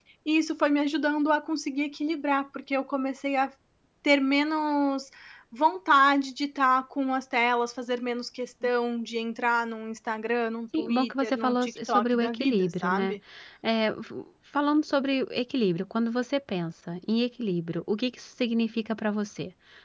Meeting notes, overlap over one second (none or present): present